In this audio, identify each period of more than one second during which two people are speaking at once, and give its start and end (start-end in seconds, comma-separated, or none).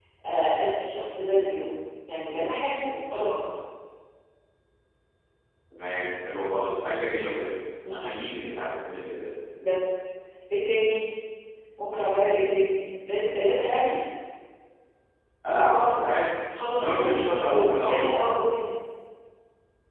16.8-18.1